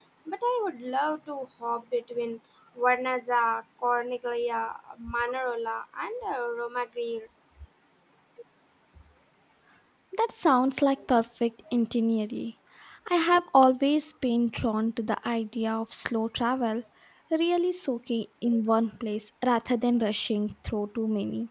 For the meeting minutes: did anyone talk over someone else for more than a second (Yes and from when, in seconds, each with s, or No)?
No